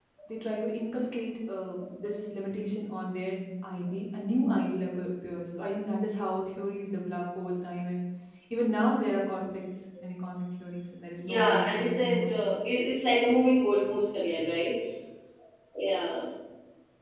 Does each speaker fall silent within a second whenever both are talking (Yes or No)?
No